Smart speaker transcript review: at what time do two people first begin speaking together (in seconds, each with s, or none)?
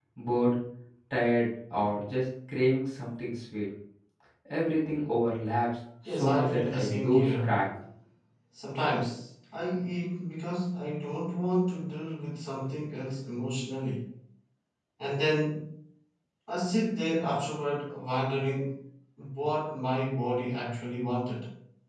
6.0 s